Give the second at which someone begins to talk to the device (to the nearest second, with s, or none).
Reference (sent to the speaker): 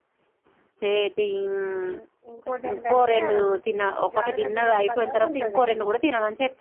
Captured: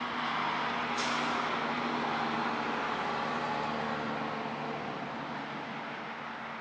none